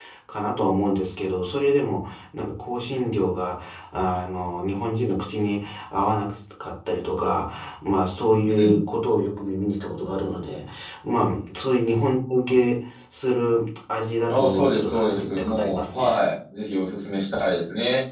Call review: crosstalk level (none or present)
present